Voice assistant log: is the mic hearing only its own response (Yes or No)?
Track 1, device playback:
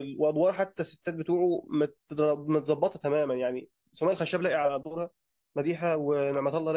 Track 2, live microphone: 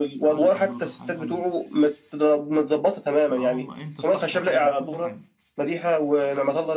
No